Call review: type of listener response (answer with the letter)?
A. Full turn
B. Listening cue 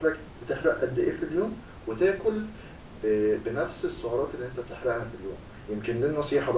B